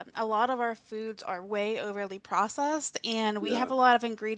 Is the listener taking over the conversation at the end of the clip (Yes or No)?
No